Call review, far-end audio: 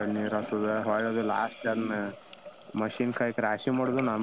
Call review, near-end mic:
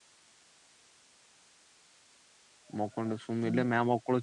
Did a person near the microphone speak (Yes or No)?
Yes